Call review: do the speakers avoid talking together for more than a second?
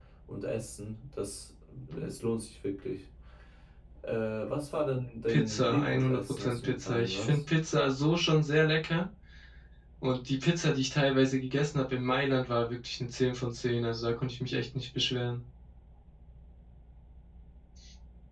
No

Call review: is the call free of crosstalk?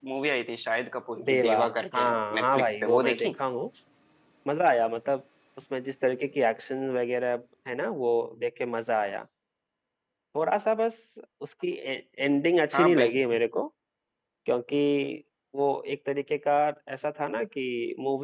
No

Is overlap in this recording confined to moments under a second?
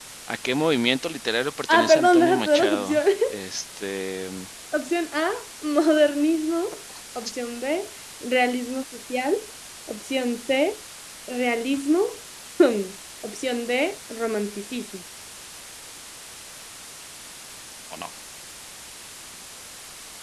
No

